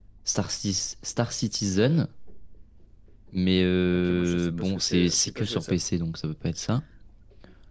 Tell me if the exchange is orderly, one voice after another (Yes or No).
No